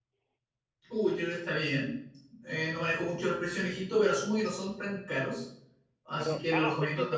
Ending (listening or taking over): taking over